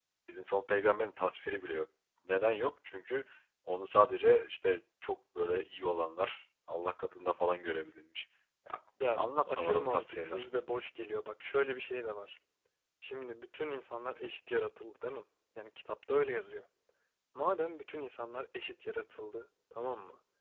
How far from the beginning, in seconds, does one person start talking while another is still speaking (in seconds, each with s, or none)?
9.0 s